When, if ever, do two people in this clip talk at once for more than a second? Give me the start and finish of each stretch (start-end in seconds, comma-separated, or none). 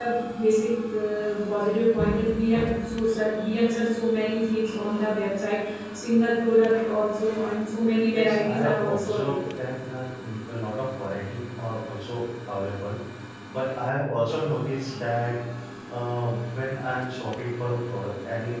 8.1-9.4